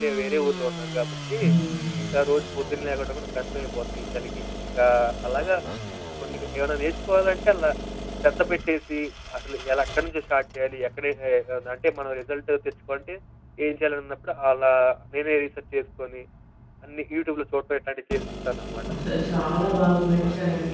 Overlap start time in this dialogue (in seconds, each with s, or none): none